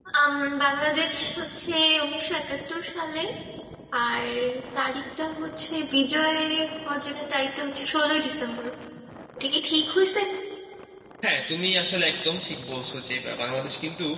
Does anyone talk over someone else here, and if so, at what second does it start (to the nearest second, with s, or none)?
none